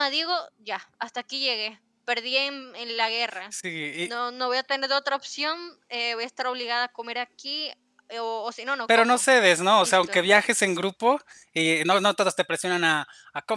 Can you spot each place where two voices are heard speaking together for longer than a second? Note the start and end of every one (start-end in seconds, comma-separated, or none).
none